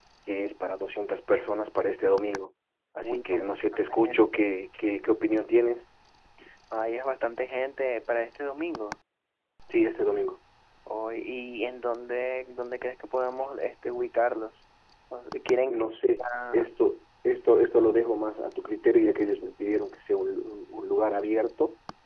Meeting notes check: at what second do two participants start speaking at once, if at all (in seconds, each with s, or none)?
3.0 s